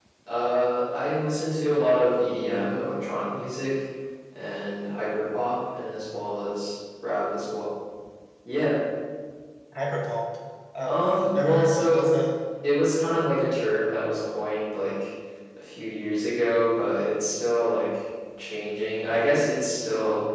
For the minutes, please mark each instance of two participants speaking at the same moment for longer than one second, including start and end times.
10.8-12.1

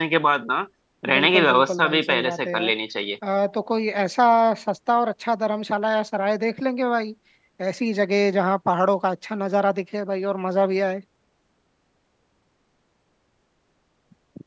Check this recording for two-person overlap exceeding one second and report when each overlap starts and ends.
1.1-2.7

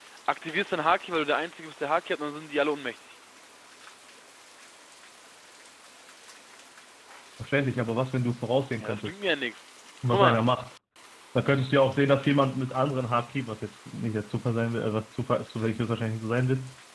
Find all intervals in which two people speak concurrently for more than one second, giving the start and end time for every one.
none

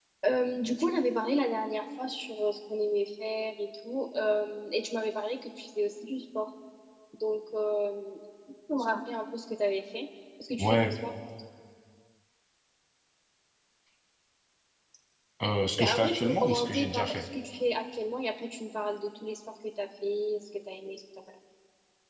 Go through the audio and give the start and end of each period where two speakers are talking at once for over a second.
15.8-17.2

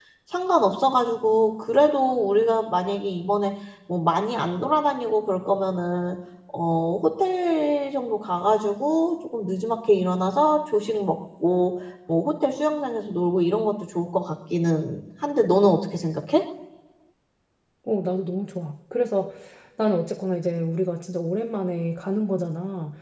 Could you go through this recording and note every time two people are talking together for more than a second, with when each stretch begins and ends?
none

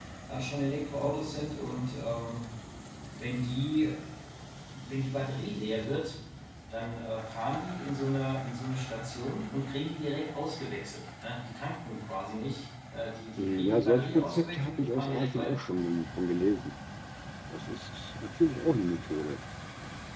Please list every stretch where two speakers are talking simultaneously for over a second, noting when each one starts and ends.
13.4-15.6

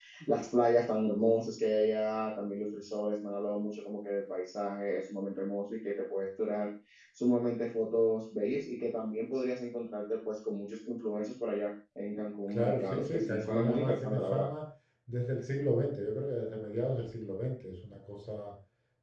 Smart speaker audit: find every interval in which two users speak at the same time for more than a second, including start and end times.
12.5-14.5

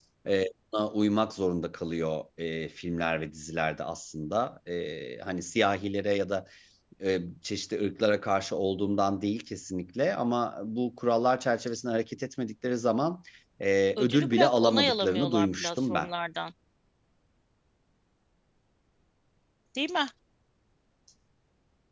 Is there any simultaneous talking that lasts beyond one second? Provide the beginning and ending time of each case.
14.0-16.1

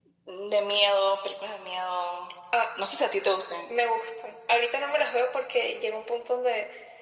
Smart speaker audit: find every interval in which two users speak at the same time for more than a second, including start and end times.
none

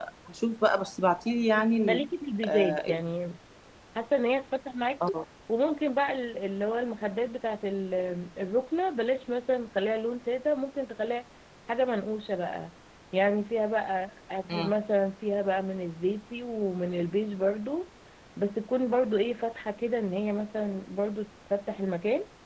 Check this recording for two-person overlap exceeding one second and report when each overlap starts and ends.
none

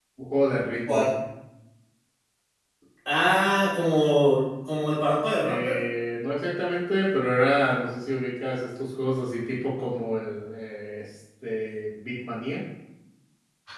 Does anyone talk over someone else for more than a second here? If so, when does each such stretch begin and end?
none

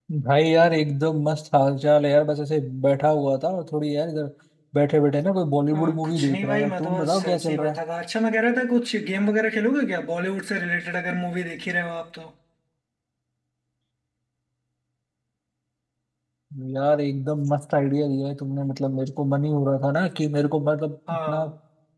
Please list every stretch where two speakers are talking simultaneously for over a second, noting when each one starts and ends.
5.7-7.8

